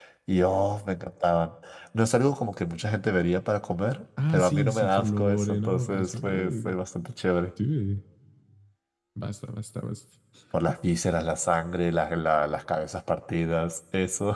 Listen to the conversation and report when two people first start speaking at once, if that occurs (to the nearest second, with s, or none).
4 s